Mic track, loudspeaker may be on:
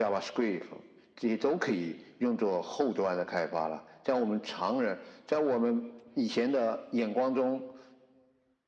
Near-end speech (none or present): none